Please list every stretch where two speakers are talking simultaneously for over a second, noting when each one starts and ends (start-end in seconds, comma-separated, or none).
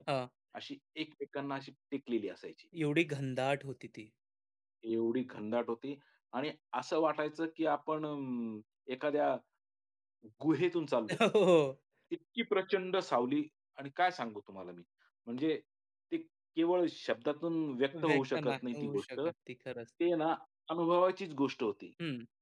17.9-19.2